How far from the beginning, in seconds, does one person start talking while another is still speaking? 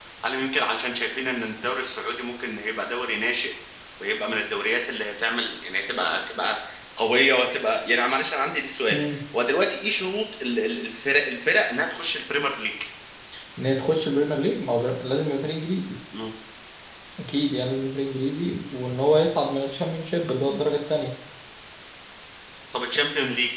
none

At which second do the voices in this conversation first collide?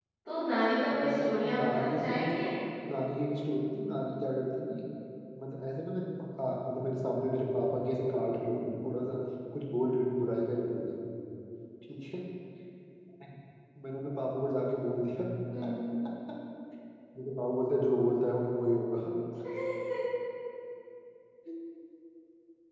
1.0 s

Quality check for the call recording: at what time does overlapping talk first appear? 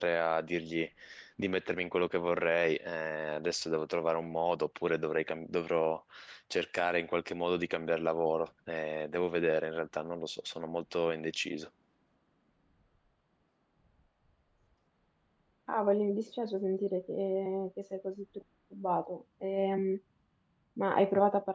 none

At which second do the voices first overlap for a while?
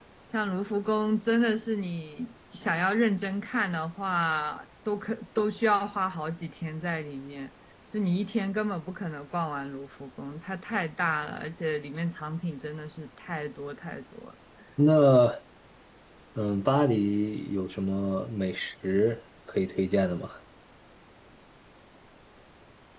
none

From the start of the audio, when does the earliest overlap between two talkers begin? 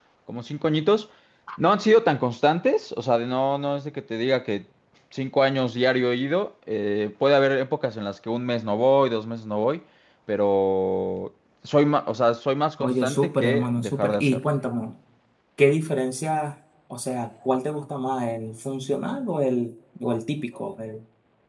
12.8 s

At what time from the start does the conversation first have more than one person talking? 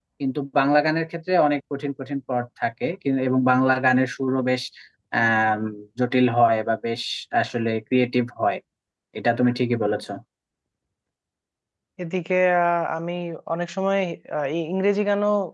none

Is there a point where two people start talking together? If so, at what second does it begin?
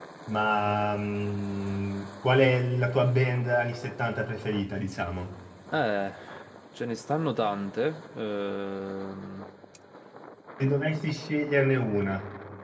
none

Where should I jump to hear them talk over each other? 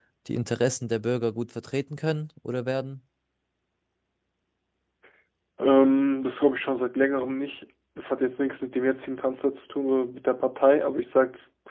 none

